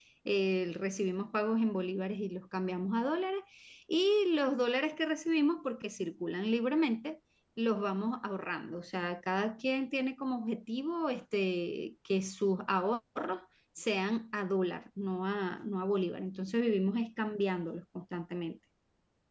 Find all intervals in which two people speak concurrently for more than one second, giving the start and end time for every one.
none

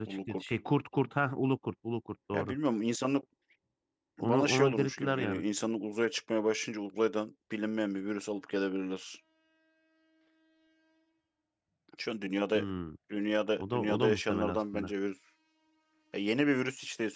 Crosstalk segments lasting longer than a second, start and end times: 4.2-5.4, 13.6-14.9

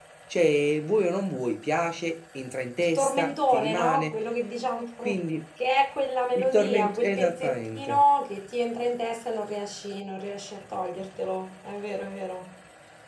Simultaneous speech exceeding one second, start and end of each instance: 2.8-4.1, 6.4-8.0

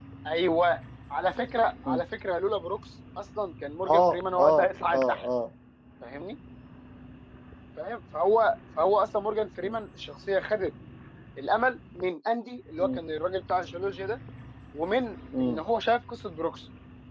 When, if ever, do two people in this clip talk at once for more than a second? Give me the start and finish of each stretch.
3.9-5.3

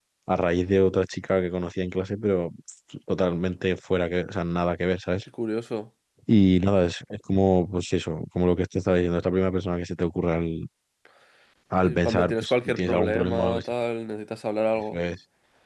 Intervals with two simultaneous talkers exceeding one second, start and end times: 11.8-13.7

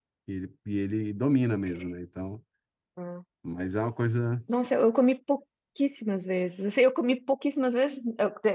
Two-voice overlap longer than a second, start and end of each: none

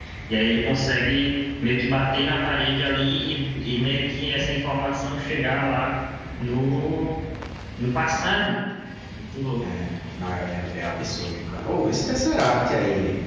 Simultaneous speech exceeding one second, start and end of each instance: none

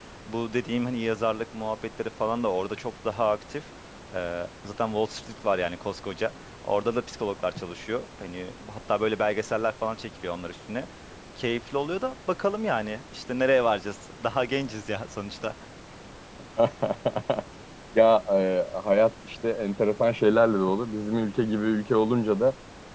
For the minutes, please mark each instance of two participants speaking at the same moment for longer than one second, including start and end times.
none

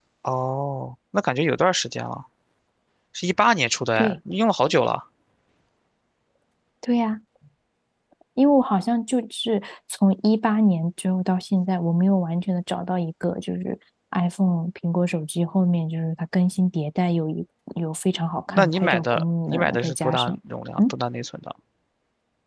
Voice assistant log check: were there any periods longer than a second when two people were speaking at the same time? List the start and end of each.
18.5-20.4

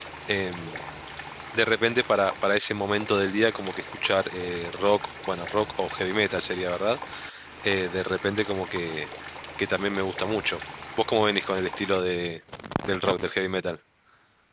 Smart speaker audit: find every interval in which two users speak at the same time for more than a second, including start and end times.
none

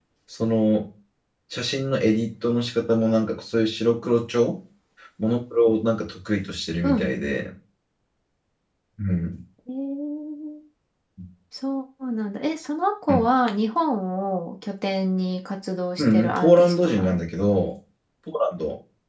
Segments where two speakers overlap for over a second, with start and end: 16.0-17.2

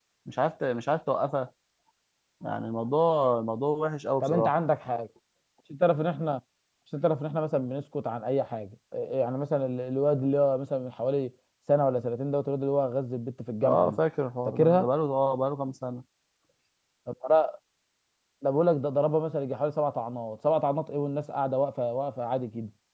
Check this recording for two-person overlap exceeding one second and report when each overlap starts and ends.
none

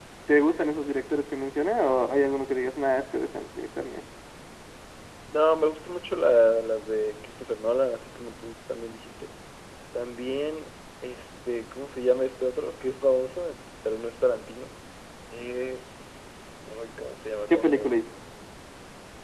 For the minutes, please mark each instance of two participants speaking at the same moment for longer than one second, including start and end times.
none

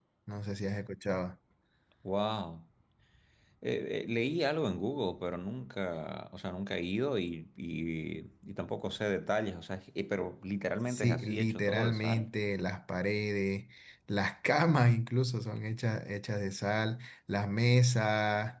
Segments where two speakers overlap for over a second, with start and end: 10.9-12.2

